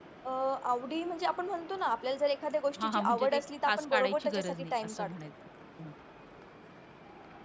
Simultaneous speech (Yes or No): Yes